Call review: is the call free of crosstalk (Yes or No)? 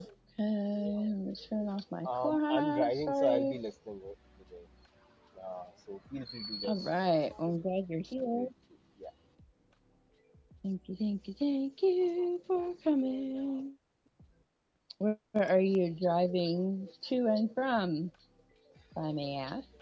No